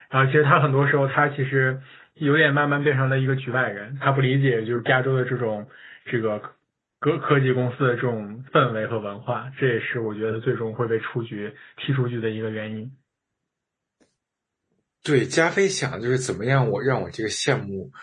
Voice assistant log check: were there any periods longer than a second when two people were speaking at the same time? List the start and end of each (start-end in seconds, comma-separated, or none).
none